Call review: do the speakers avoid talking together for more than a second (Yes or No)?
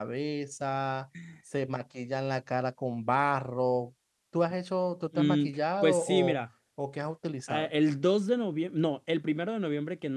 No